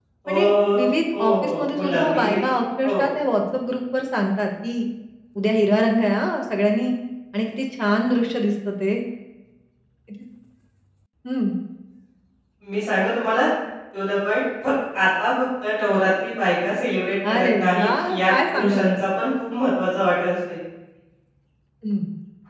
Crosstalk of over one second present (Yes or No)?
Yes